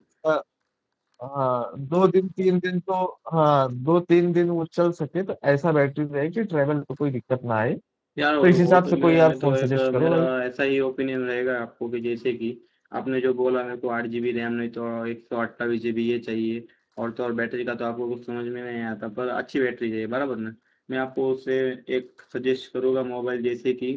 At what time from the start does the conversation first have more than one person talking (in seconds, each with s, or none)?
8.4 s